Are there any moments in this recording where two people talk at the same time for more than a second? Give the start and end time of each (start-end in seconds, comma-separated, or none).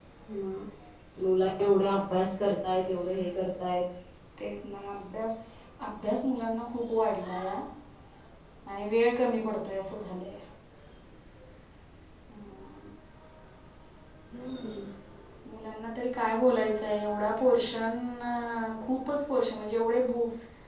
none